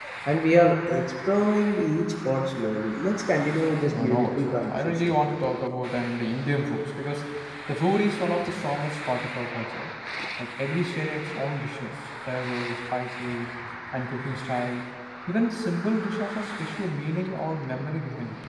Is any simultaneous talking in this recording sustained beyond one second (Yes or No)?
Yes